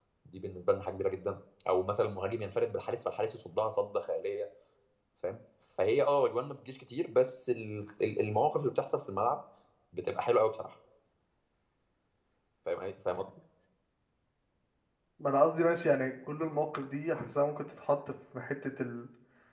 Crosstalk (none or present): none